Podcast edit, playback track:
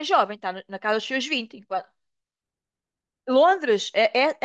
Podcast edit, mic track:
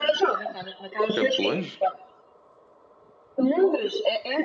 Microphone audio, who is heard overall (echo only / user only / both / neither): both